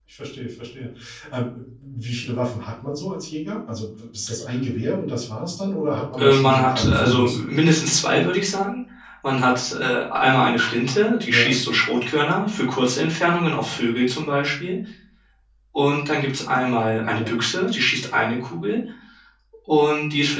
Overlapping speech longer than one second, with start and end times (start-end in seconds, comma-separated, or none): 6.2-7.4